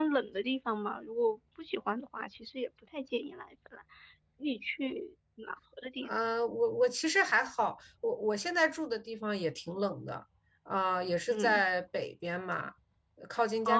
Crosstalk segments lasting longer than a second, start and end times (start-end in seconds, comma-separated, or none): none